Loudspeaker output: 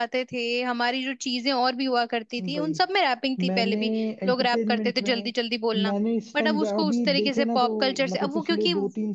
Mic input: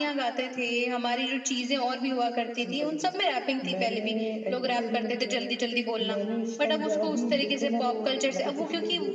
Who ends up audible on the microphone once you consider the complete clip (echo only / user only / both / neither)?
echo only